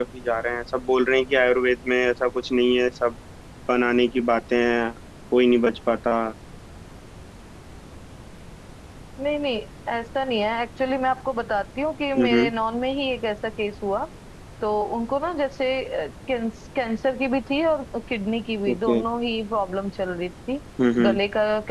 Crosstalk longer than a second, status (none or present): none